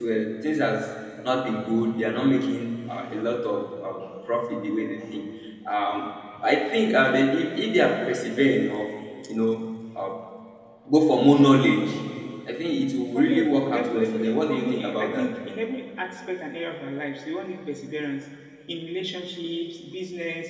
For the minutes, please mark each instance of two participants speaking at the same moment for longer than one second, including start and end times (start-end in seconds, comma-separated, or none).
13.1-15.3